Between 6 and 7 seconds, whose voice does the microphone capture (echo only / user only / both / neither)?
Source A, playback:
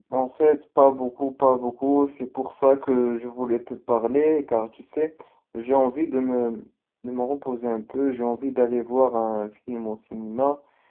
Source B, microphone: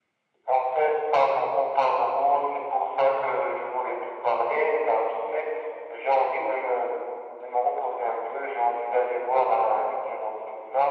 echo only